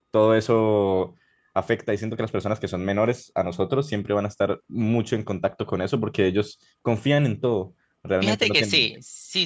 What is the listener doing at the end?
taking over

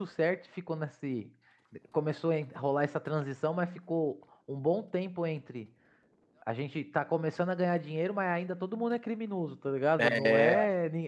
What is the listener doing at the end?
listening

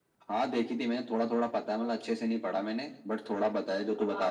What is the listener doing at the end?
taking over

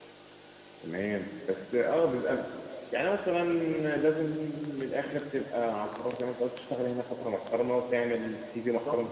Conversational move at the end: taking over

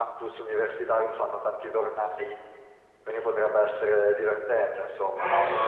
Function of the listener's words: taking over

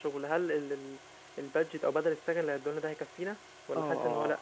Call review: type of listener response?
taking over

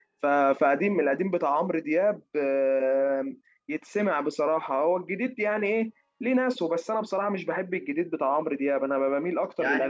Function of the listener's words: taking over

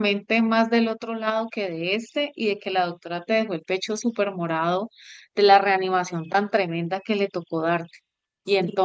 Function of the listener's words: taking over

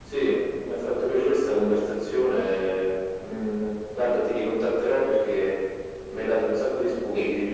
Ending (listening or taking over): taking over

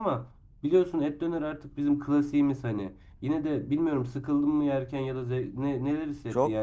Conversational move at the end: taking over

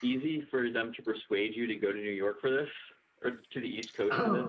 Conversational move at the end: taking over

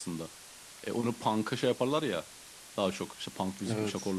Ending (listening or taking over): listening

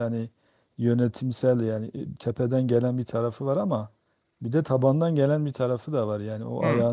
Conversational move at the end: listening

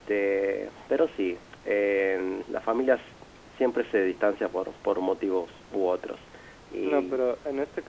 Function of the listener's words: taking over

